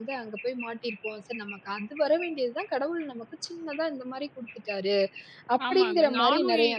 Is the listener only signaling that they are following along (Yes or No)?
No